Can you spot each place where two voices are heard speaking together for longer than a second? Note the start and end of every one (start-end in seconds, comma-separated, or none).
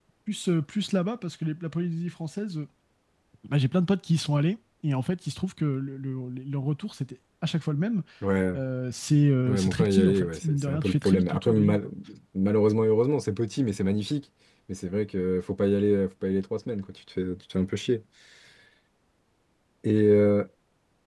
9.5-11.9